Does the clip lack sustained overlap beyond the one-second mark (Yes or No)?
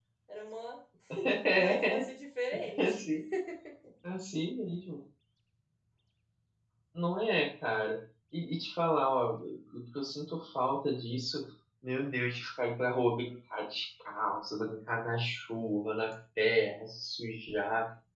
Yes